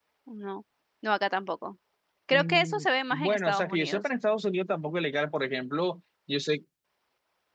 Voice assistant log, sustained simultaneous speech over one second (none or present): present